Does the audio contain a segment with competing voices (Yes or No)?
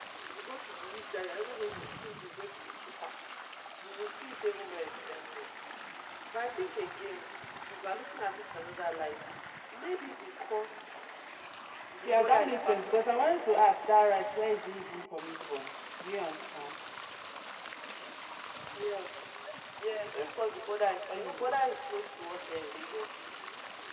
Yes